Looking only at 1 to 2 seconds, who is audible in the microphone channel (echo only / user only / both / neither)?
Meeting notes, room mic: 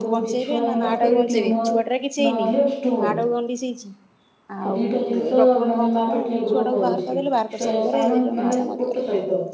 both